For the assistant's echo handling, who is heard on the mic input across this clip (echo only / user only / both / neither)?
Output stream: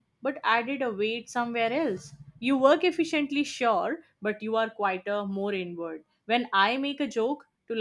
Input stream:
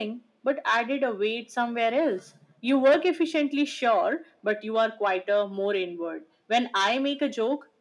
echo only